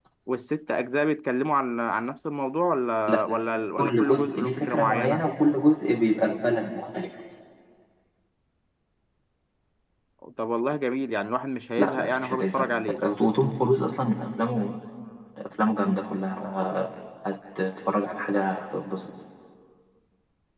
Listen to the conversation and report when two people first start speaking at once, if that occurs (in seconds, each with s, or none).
3.8 s